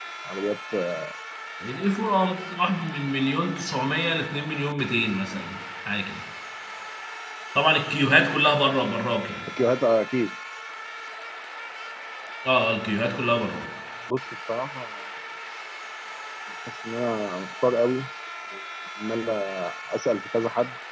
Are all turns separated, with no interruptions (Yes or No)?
Yes